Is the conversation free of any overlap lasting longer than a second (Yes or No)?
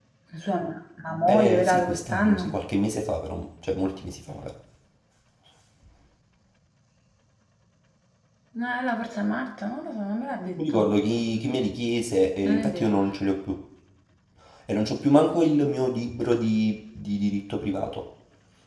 No